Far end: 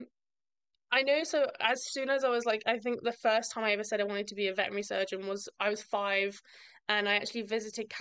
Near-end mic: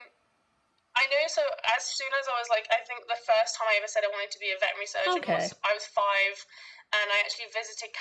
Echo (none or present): present